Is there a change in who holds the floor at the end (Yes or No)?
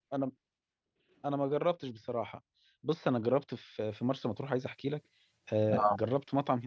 No